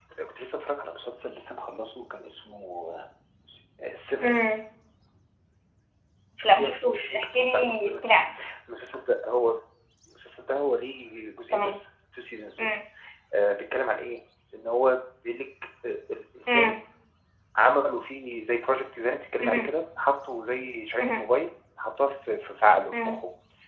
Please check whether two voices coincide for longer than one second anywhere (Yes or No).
Yes